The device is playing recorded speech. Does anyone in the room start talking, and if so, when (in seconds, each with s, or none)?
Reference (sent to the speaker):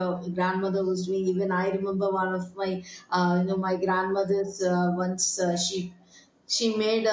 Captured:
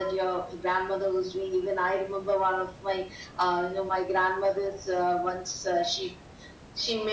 none